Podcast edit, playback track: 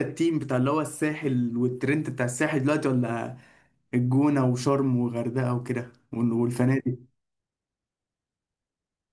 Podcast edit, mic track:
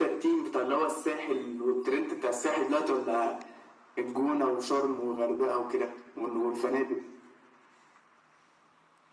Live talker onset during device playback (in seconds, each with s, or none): none